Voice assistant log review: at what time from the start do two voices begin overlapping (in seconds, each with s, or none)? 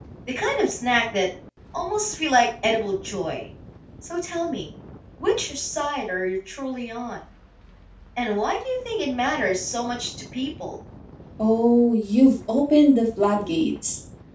none